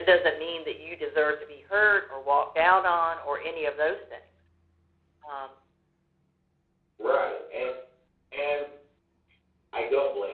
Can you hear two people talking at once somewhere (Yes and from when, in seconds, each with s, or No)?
No